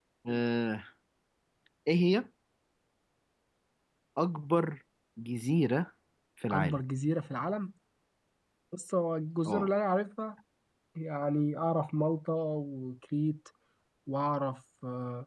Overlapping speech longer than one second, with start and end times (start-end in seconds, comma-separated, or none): none